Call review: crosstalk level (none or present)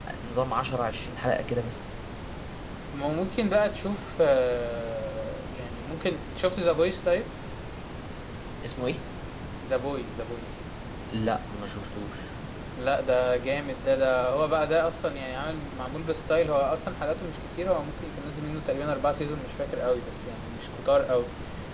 none